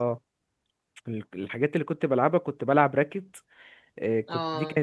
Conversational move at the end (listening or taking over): listening